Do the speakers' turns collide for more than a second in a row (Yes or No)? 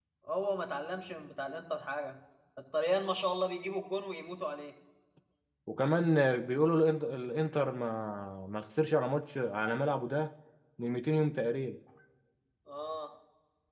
No